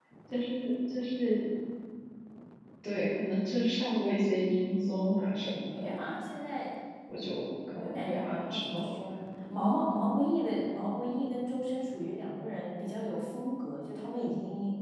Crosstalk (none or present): present